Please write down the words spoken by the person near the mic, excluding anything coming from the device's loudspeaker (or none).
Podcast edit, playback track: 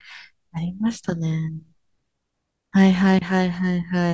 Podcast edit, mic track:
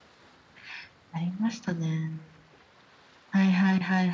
none